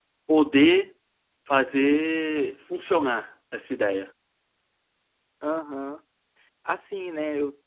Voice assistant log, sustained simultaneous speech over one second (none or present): none